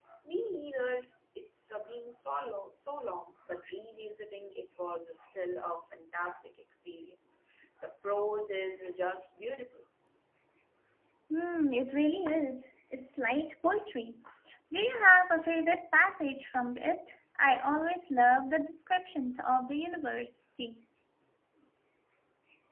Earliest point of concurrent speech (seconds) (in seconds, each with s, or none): none